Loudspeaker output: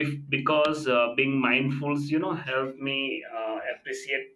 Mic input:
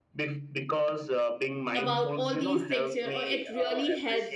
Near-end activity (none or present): present